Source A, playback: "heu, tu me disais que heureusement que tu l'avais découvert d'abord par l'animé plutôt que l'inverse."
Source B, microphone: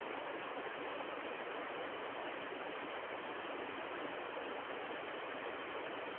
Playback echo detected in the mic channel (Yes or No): No